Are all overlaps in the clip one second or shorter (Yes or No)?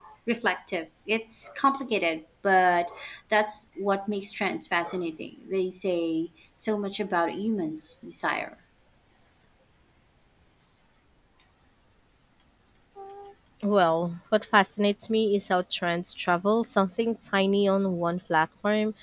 Yes